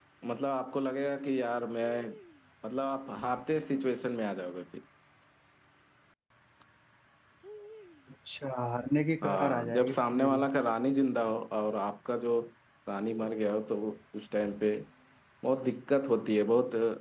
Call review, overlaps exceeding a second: present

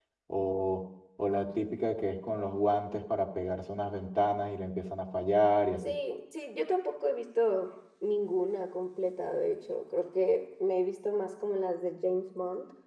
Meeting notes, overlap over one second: none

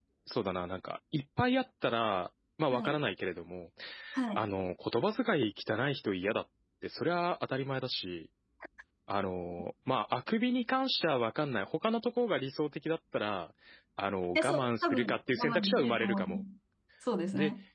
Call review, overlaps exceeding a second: present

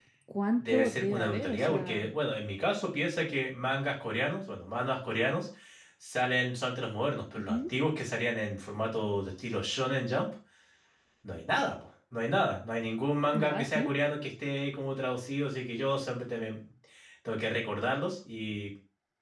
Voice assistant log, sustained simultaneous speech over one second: present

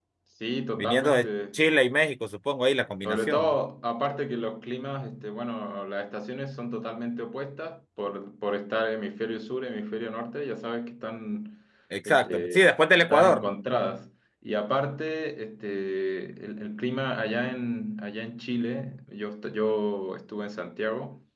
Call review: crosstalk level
present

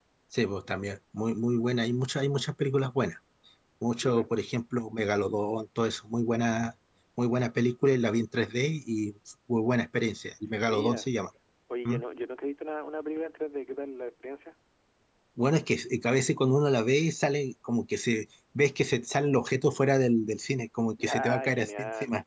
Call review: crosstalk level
present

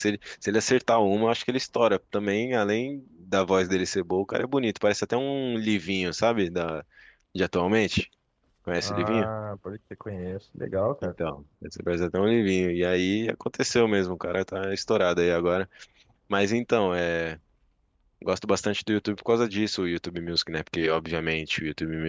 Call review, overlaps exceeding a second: none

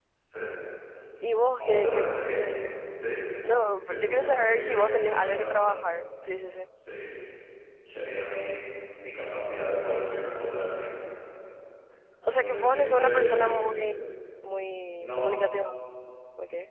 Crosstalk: present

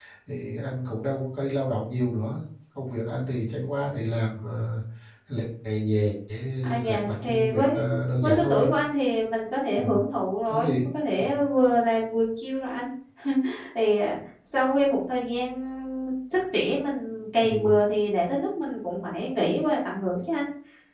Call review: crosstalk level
present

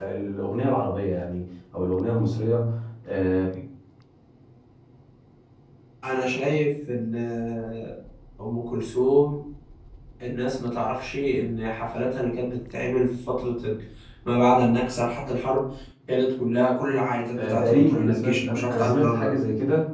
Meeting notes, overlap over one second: present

